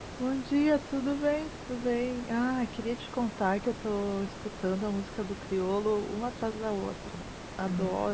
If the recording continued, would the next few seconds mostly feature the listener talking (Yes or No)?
Yes